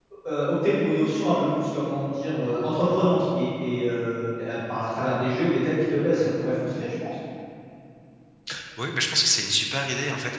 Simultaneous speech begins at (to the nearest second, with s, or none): none